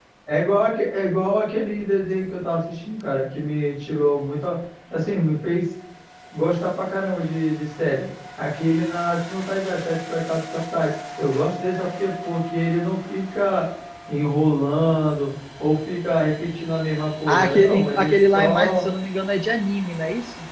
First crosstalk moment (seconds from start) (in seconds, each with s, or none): 17.3 s